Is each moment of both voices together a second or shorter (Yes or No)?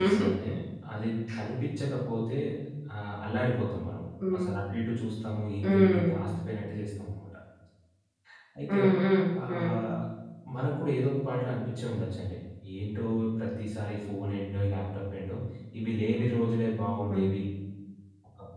Yes